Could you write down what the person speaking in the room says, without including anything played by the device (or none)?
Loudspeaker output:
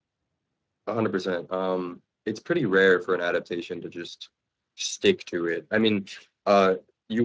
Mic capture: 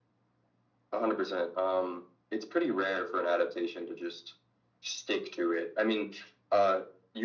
none